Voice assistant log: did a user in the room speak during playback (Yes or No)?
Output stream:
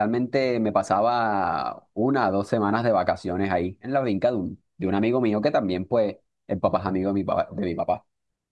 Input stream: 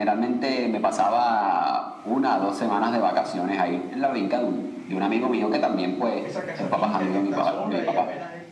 Yes